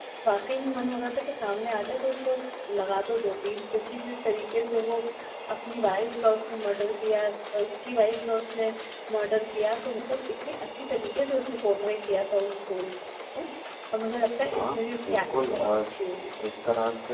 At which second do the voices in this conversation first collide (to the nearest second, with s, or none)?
15 s